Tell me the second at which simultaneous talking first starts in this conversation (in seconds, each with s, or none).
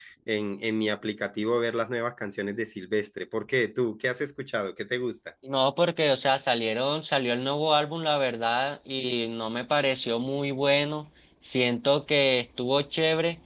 none